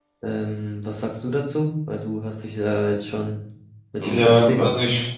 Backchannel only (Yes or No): No